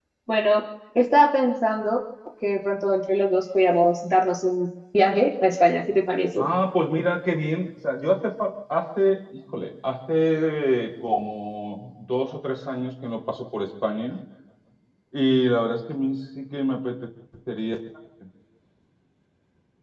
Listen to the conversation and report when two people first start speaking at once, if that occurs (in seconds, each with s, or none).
none